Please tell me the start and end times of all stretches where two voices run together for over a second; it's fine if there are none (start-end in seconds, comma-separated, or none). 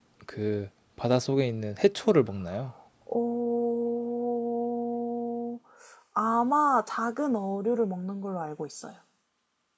none